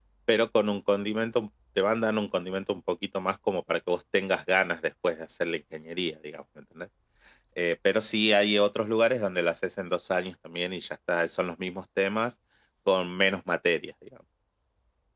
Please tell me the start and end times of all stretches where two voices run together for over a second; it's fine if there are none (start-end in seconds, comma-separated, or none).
none